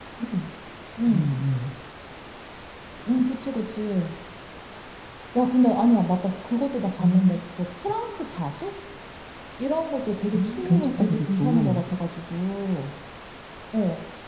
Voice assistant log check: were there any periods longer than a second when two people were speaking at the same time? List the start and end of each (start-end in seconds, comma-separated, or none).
10.3-11.8